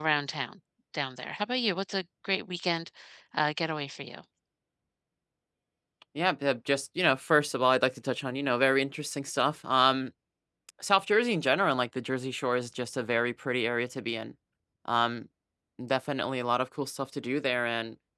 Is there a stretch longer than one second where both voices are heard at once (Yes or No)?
No